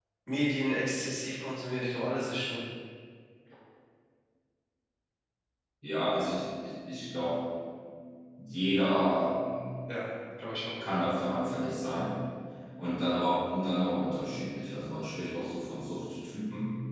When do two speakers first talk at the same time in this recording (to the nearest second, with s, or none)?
none